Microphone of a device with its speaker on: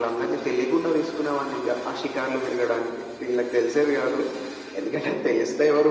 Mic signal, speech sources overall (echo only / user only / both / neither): echo only